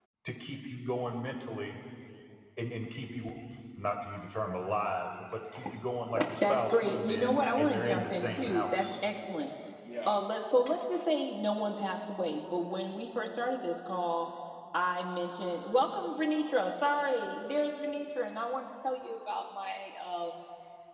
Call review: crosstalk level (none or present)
present